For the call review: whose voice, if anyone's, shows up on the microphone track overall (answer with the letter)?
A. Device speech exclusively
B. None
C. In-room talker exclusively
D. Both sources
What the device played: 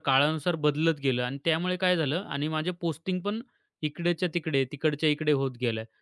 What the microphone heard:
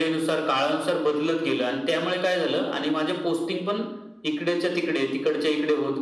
A